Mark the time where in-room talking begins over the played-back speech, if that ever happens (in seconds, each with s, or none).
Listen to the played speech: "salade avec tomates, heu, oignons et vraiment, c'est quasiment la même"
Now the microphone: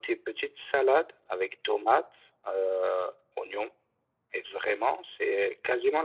none